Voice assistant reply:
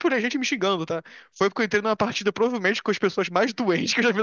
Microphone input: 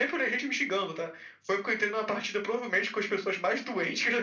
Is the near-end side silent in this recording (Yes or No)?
Yes